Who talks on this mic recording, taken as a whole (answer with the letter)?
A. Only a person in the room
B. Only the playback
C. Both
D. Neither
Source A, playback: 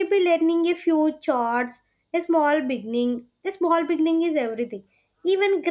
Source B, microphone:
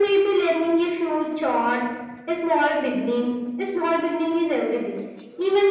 B